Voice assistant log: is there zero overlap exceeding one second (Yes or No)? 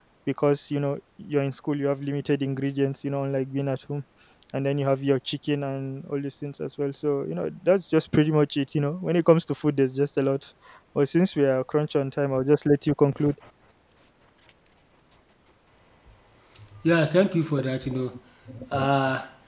Yes